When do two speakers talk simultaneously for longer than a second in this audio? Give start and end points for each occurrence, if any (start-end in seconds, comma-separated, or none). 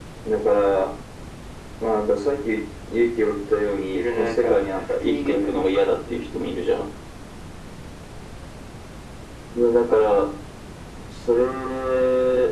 3.9-5.6